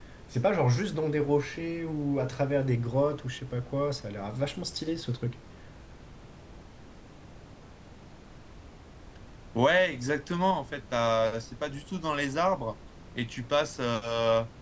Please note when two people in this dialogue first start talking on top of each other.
none

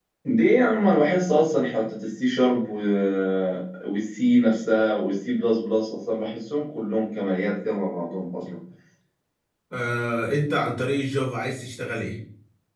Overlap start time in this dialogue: none

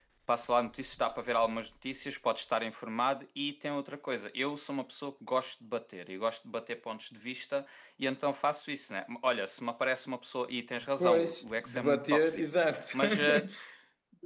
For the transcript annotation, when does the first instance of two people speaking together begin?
10.8 s

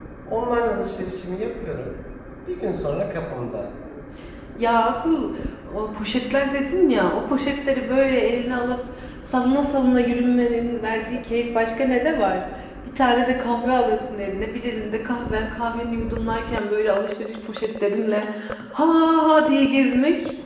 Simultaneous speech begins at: none

